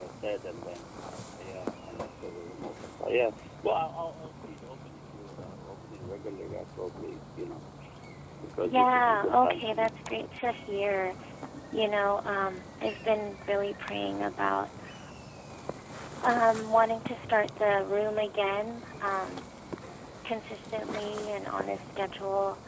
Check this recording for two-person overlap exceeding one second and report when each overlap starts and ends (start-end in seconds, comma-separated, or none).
8.6-10.2